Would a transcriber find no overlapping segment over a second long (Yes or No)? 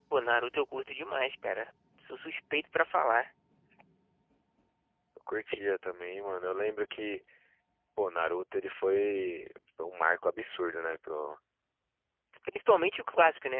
Yes